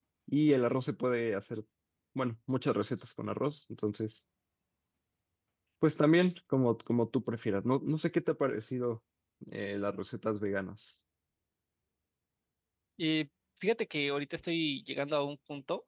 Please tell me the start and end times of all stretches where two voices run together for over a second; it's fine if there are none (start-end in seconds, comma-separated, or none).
none